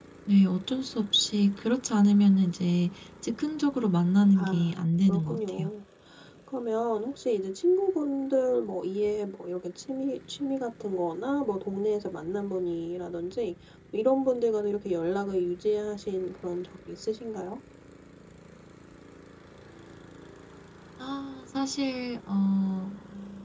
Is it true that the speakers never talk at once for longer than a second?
No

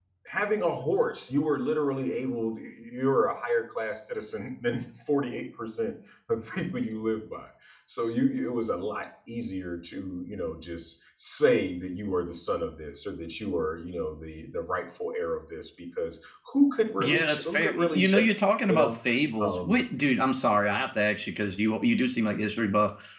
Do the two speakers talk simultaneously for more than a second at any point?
Yes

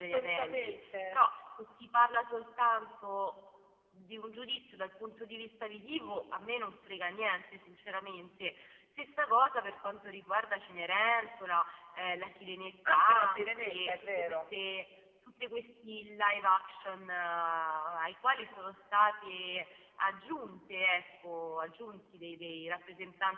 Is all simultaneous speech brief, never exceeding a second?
No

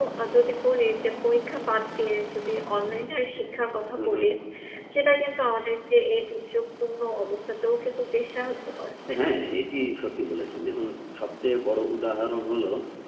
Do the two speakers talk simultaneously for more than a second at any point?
No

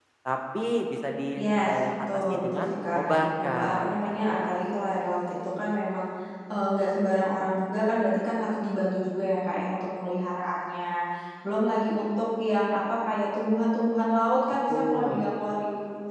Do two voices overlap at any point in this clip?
Yes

